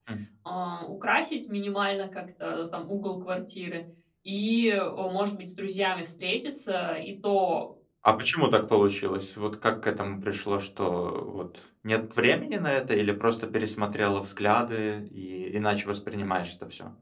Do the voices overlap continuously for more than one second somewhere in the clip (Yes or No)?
No